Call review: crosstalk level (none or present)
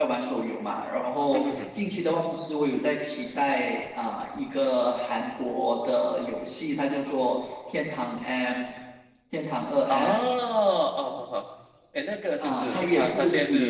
present